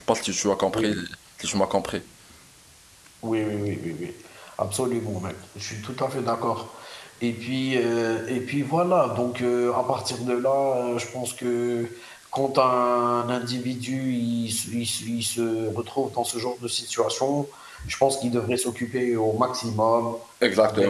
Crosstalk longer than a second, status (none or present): none